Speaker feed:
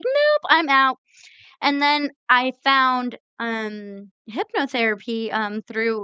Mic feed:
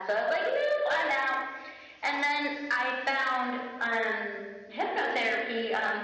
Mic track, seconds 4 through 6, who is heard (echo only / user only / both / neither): echo only